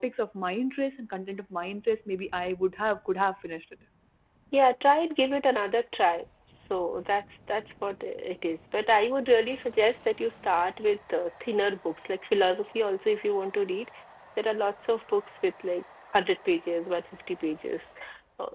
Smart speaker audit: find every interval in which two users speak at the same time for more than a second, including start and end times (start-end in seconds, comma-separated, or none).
none